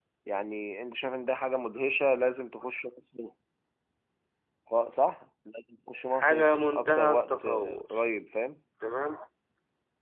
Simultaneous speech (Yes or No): Yes